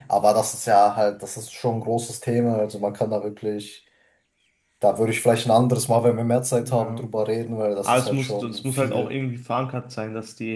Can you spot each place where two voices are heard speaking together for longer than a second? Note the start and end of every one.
7.8-9.1

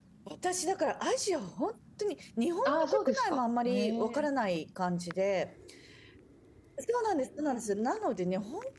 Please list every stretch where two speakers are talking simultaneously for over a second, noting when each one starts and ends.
2.6-4.3

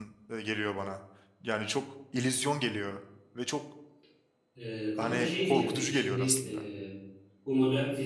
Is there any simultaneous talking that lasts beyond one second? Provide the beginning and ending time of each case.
5.0-6.5

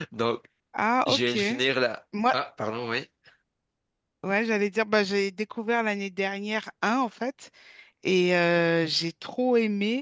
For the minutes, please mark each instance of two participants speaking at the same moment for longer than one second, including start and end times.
none

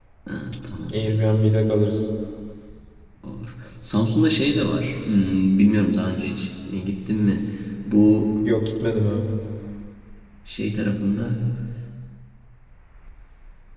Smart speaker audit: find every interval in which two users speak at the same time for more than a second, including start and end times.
none

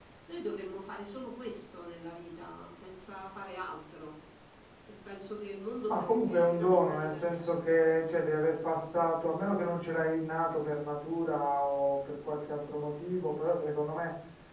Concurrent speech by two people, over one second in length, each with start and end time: 5.9-7.7

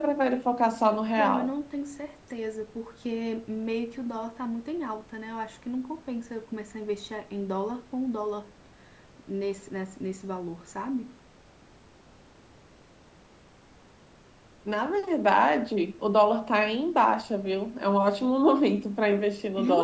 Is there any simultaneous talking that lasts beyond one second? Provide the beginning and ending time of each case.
none

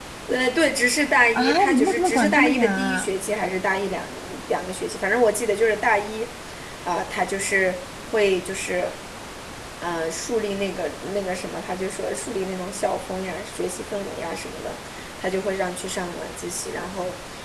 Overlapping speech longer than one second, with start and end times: 1.3-3.1

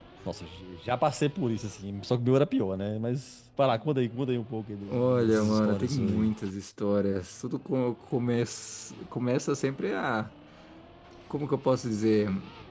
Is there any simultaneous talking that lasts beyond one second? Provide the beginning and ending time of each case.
4.9-6.3

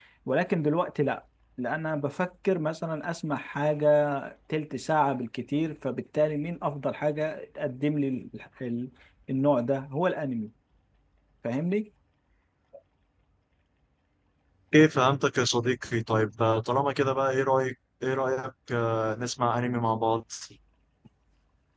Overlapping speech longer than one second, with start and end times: none

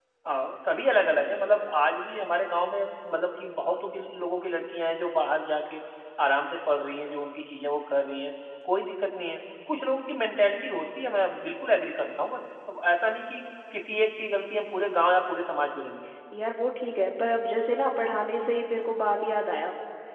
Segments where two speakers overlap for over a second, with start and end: none

